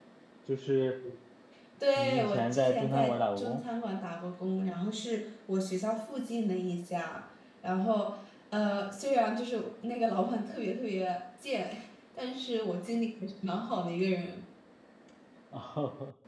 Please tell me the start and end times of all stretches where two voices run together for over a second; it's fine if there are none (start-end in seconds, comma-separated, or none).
2.0-3.6